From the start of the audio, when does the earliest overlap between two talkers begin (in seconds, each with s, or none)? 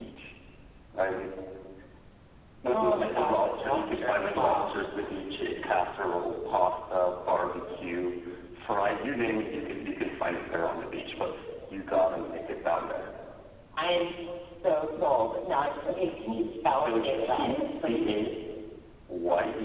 2.6 s